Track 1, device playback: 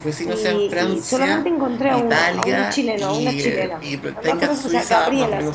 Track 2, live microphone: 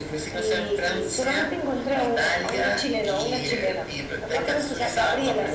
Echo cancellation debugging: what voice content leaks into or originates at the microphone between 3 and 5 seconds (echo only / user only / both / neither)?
echo only